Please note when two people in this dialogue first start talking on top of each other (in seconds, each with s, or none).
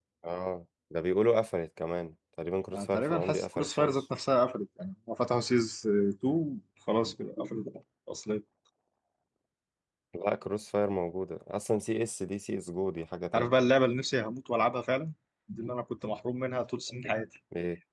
2.7 s